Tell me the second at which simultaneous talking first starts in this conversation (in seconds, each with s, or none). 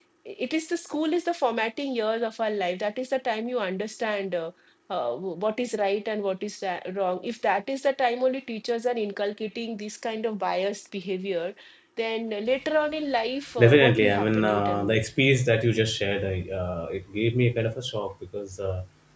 13.6 s